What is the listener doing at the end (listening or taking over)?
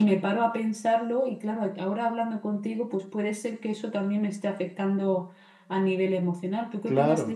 taking over